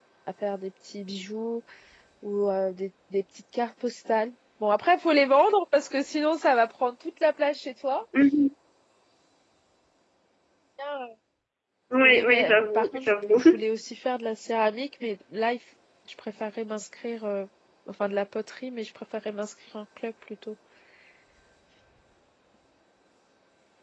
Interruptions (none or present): present